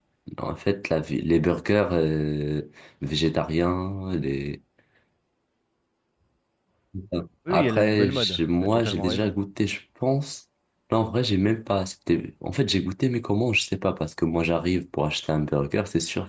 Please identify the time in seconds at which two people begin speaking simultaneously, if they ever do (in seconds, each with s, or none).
7.5 s